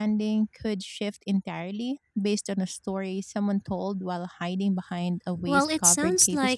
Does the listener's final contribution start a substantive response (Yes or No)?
Yes